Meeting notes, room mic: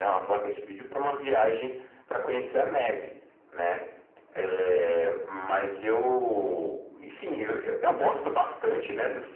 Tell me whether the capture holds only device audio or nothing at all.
Yes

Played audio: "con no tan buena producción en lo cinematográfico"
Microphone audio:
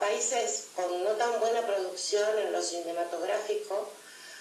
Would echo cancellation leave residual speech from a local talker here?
No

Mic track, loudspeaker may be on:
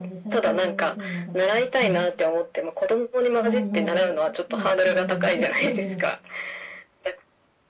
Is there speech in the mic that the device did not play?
Yes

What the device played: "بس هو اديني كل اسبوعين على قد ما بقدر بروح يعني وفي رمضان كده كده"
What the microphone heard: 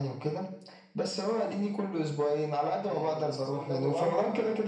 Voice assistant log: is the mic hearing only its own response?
No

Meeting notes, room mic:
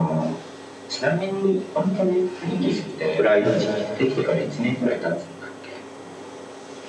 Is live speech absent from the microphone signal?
No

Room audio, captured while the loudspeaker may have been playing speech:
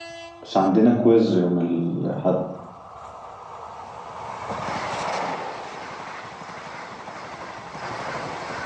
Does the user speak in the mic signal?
Yes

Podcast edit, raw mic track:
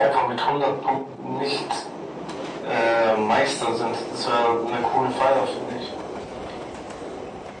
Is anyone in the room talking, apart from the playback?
No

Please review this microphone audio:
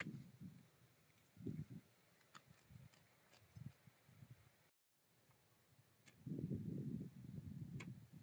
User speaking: No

